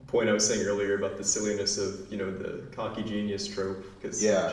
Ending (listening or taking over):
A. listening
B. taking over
A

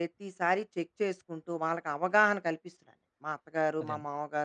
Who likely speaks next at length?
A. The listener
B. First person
B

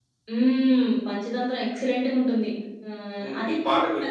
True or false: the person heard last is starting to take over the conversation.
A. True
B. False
A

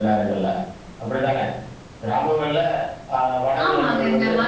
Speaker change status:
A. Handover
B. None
A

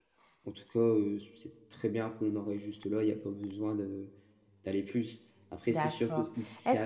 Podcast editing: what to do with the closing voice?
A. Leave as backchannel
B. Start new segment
B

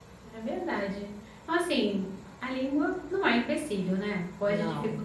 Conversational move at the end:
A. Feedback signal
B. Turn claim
A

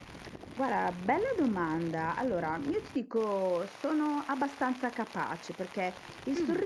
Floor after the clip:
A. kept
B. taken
A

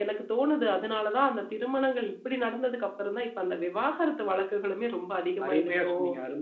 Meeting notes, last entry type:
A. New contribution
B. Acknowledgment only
A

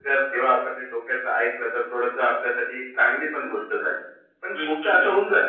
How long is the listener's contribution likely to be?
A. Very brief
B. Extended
A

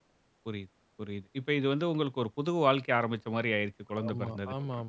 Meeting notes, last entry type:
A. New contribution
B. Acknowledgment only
A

